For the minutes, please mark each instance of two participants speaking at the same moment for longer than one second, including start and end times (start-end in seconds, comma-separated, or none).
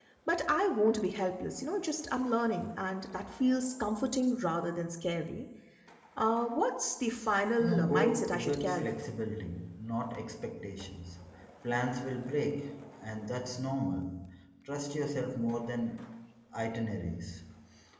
7.6-8.9